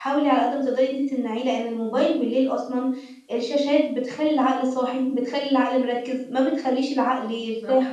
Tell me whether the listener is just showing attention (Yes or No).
Yes